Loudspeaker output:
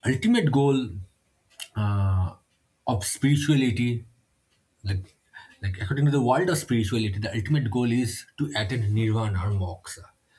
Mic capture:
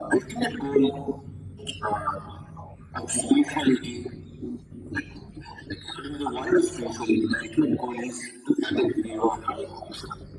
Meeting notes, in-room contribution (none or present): none